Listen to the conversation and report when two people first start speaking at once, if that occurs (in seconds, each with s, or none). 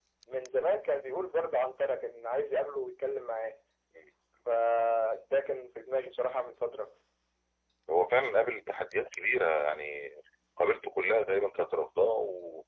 none